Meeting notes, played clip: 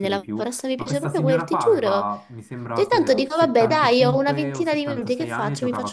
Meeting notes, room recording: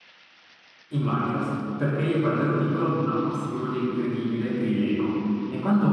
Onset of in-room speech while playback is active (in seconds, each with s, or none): 0.9 s